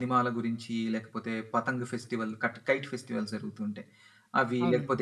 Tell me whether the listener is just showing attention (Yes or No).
Yes